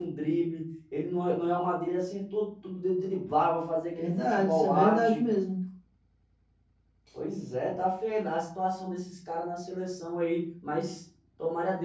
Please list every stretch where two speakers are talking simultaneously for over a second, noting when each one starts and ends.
3.9-5.2

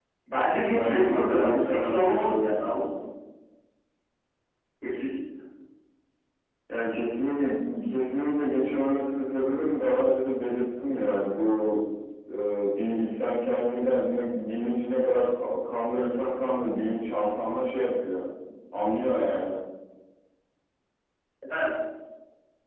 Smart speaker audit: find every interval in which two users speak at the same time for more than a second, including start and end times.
0.7-2.6

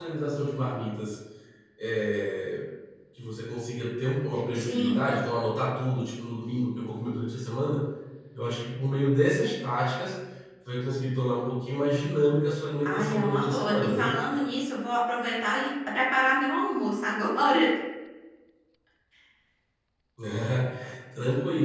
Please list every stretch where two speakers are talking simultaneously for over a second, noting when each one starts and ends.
12.8-14.2

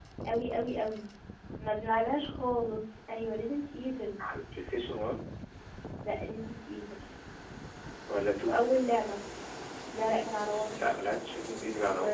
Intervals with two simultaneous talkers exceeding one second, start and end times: none

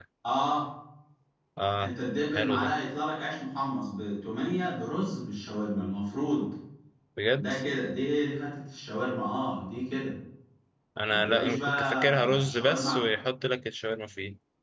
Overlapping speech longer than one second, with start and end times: 11.1-13.0

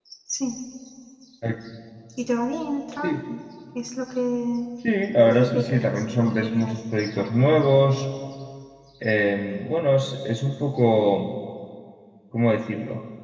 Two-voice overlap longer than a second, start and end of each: 5.3-7.3

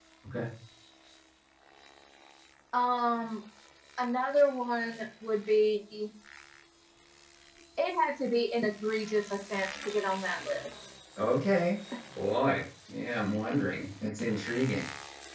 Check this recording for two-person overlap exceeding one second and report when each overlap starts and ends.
none

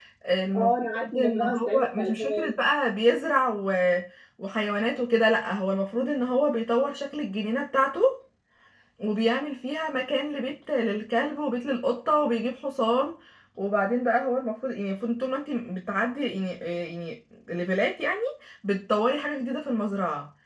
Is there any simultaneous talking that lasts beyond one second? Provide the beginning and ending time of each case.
0.5-2.6

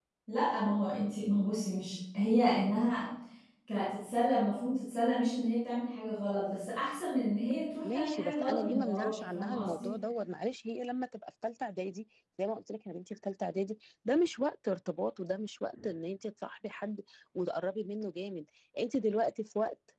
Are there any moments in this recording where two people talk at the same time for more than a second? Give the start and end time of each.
7.8-9.9

